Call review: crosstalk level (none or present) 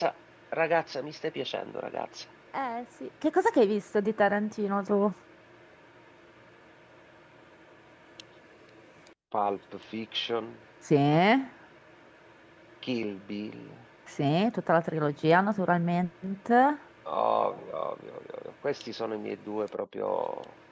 none